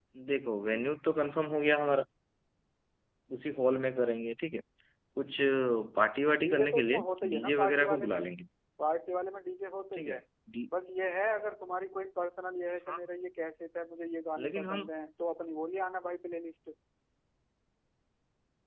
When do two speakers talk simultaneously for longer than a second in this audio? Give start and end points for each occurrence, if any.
6.4-8.2

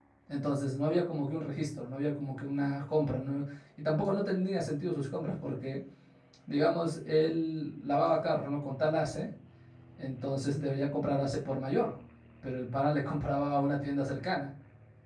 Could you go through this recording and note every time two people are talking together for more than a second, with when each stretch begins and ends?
none

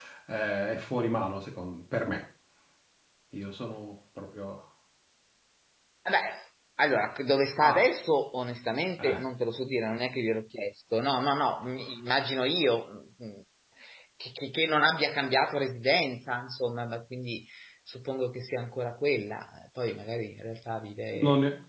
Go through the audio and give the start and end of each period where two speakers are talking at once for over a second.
none

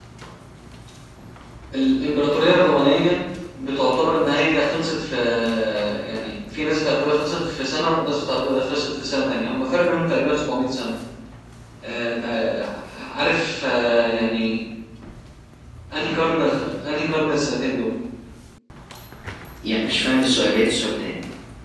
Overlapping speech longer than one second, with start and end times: none

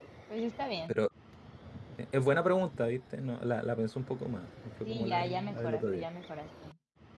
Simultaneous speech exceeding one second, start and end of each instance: 4.8-6.0

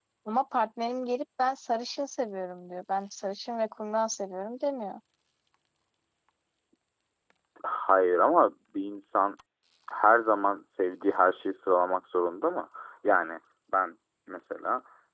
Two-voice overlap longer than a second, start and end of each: none

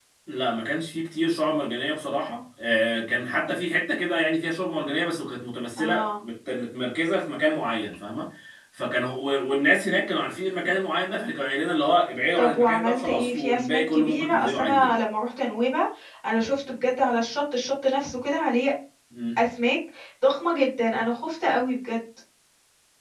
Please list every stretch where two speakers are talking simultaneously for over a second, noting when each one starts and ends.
12.4-14.9

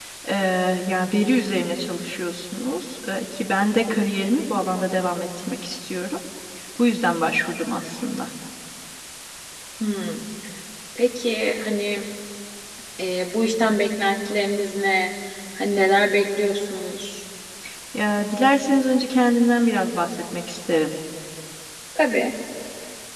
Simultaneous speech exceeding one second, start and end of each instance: none

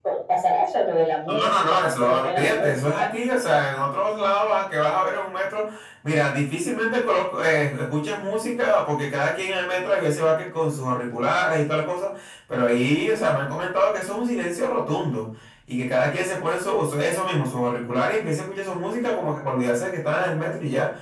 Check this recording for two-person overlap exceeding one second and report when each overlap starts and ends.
1.3-3.1

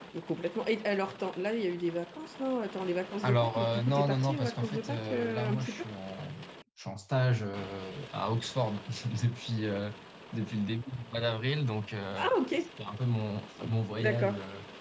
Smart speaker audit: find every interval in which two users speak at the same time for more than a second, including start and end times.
3.2-5.8

